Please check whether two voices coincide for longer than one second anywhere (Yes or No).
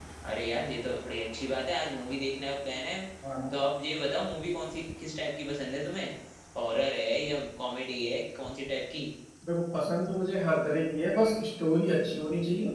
No